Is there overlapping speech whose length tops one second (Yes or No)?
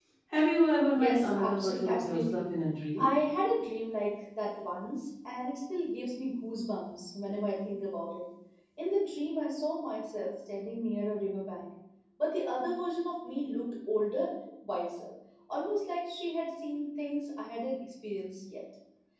Yes